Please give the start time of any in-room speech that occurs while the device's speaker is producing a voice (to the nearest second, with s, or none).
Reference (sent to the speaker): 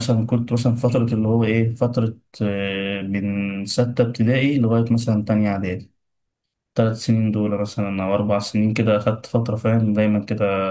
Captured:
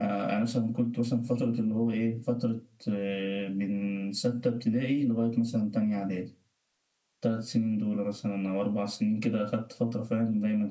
none